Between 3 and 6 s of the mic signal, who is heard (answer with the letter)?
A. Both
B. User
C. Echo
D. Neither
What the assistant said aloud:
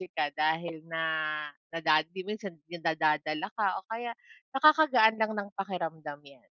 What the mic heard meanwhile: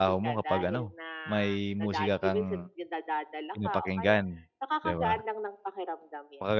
A